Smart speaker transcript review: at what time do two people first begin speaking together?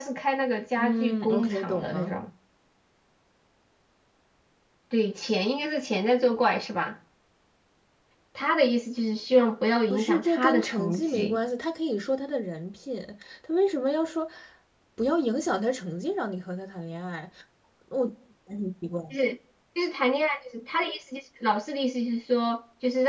0.8 s

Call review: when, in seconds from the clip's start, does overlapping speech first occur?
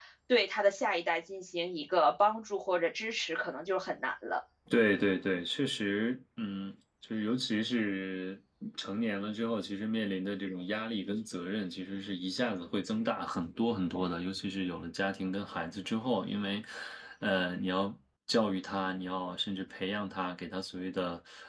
none

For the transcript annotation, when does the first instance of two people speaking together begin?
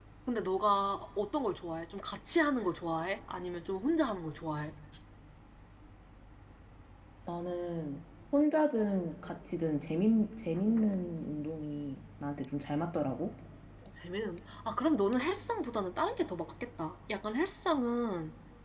none

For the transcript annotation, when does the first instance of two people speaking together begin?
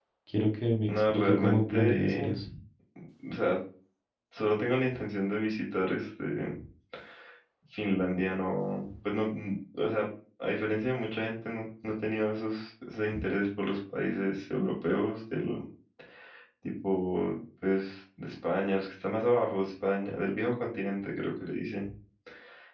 0.9 s

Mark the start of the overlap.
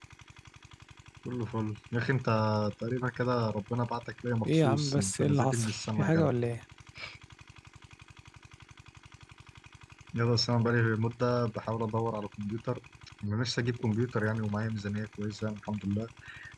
4.5 s

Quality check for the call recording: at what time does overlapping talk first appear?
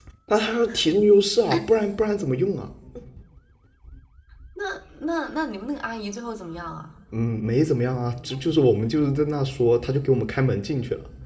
none

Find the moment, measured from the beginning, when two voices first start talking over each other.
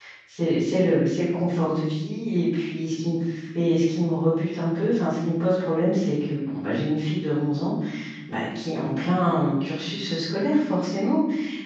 none

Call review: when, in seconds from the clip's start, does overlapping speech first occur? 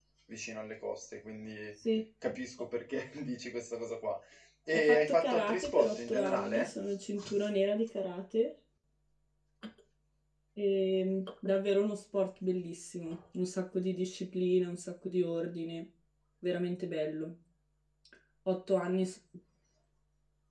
4.7 s

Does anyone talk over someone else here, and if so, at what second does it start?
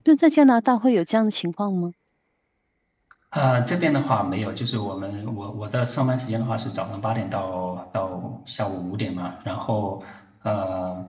none

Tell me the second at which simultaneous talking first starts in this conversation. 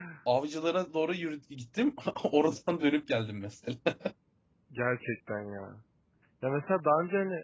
none

